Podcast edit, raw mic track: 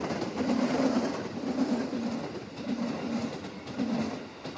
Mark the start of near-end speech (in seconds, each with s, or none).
none